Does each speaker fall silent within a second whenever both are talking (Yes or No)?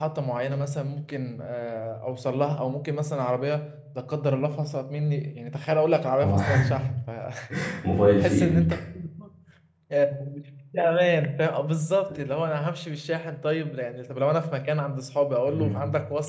Yes